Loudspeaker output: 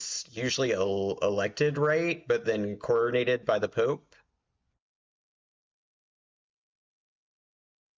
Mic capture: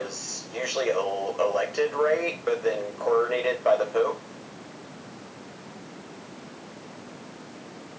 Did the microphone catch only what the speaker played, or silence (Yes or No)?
Yes